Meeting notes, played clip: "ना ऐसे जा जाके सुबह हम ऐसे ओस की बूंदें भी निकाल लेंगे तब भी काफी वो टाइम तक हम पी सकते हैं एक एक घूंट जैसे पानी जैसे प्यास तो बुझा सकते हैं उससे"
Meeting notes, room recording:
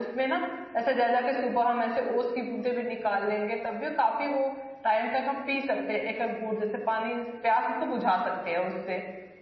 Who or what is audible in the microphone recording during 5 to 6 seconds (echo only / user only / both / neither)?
echo only